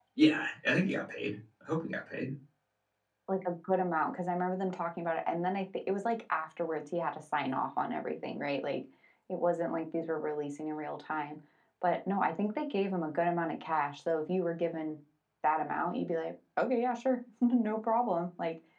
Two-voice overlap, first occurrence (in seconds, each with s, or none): none